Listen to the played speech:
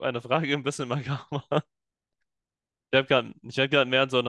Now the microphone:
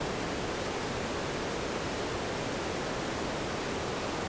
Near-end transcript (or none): none